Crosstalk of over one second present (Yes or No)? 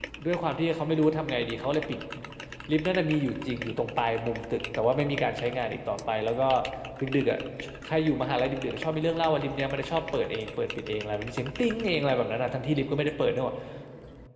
No